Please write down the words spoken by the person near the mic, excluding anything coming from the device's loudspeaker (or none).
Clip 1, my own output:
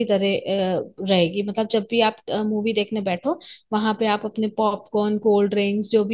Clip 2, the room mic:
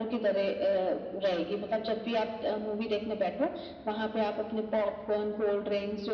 none